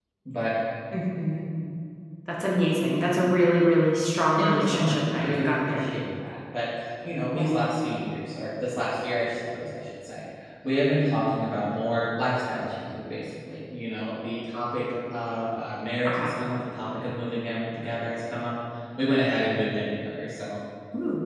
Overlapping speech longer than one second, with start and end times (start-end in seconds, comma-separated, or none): 4.2-5.8